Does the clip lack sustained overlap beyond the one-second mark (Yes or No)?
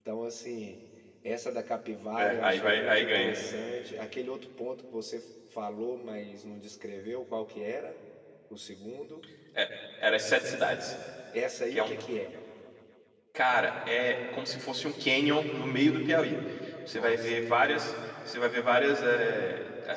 No